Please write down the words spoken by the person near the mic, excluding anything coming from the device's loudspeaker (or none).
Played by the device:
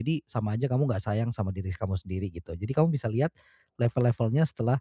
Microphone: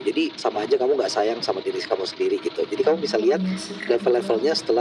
Oh, iya sih, Kak, betul.